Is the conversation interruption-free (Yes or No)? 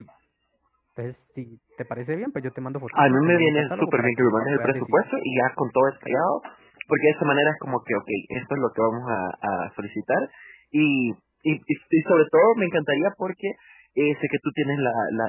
No